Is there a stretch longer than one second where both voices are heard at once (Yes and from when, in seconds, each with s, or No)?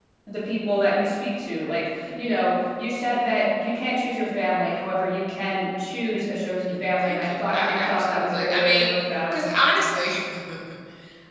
Yes, from 6.7 s